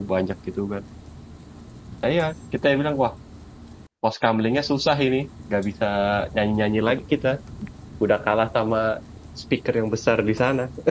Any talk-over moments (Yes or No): No